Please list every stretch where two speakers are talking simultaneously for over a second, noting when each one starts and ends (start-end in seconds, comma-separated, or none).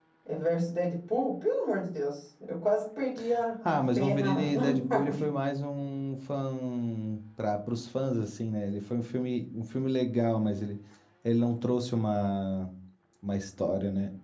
3.6-5.3